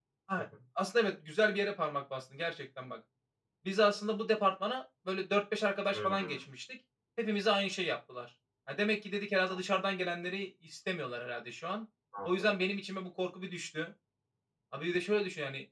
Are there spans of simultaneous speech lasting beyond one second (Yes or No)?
No